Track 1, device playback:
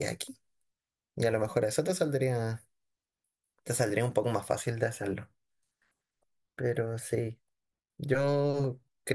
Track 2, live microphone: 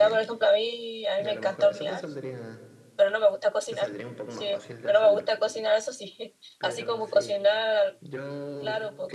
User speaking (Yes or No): Yes